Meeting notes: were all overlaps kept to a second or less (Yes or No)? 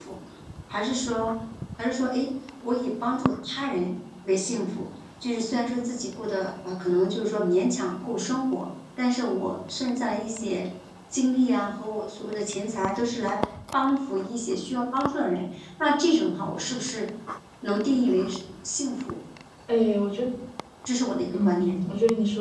Yes